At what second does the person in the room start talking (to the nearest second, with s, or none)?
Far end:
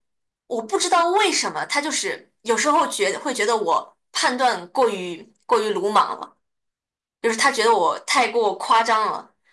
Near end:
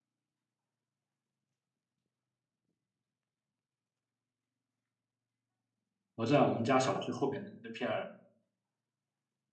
6 s